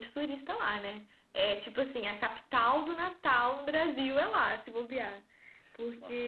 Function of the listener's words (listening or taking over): taking over